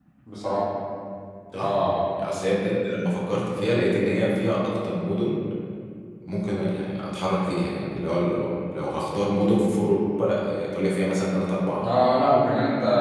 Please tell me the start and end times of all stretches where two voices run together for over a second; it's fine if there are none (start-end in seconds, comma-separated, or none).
none